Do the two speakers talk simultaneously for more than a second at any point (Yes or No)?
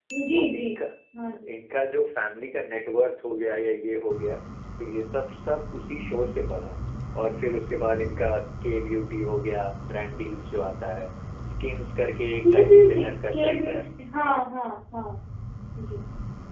Yes